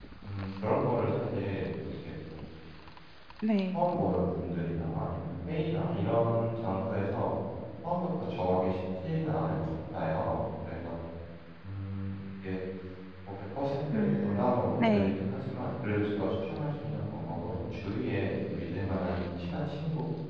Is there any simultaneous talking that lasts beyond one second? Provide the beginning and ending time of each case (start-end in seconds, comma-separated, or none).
13.9-15.2